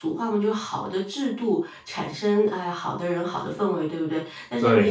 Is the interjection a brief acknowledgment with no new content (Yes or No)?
Yes